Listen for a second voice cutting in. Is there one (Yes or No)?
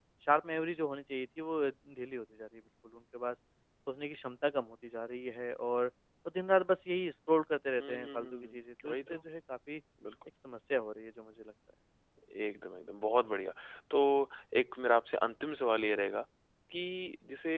Yes